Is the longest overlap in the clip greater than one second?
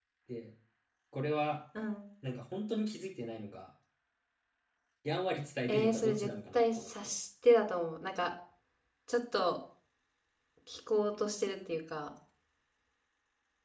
Yes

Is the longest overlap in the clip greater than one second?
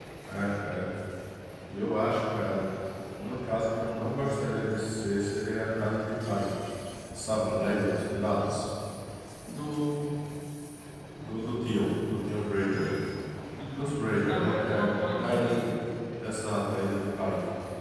Yes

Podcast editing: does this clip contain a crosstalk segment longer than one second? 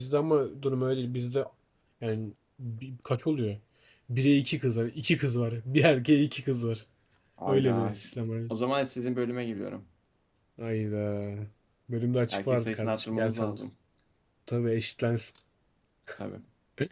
Yes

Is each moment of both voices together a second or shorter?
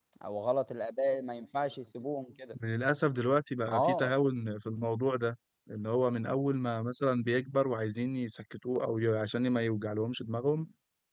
Yes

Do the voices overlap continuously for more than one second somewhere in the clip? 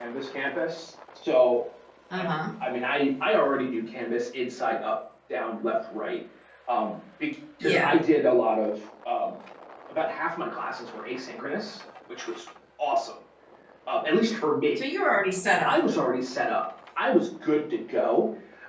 No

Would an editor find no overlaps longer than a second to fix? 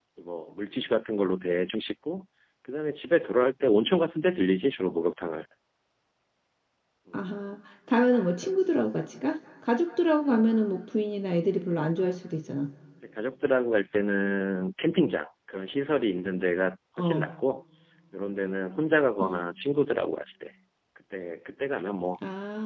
Yes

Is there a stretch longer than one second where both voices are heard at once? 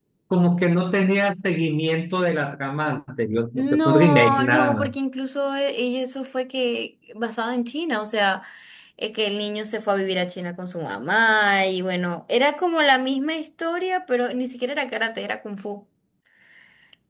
Yes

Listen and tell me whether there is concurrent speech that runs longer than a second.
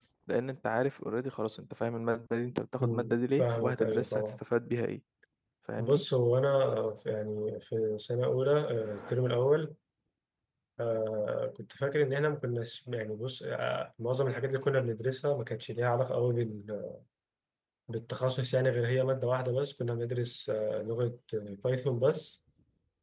Yes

